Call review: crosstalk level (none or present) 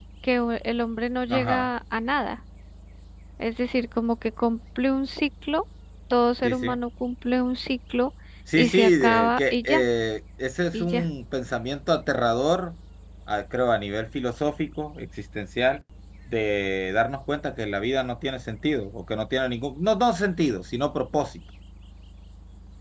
present